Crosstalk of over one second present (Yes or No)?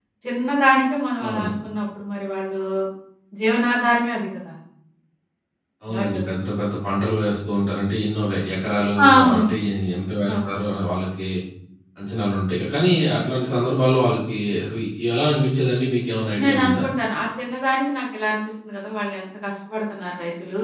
No